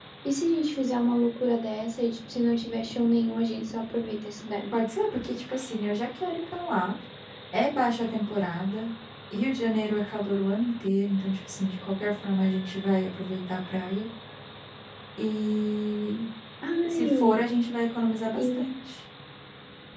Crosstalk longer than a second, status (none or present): none